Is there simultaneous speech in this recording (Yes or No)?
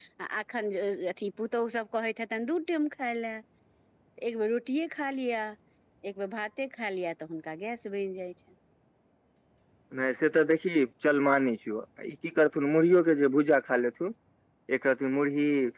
No